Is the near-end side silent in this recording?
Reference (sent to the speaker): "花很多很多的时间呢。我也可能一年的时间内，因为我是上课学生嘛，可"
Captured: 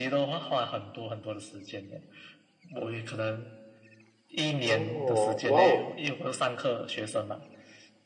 No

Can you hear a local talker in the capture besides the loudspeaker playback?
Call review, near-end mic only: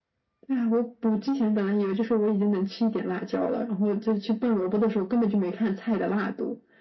No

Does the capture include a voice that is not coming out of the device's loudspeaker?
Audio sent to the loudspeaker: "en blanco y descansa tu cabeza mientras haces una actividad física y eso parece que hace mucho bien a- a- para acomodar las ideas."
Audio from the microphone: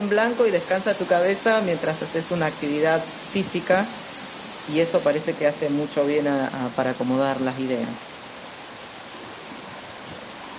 No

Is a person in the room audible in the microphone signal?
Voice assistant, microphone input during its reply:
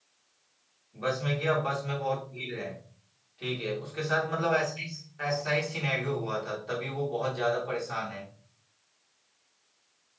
Yes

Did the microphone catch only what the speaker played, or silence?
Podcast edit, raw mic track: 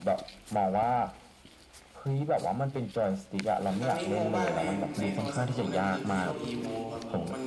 No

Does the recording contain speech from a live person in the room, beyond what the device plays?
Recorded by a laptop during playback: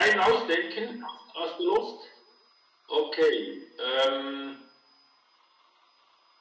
No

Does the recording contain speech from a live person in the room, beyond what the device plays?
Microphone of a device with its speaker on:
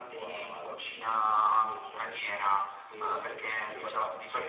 No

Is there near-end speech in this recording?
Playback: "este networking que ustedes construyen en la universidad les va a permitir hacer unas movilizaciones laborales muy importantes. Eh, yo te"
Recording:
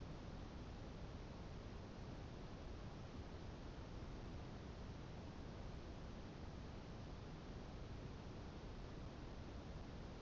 No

